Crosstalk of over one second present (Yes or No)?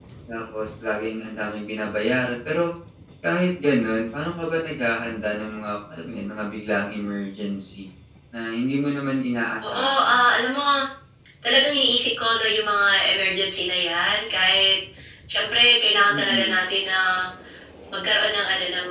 No